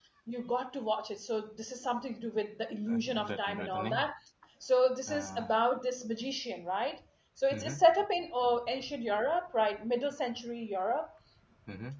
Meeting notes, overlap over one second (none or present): present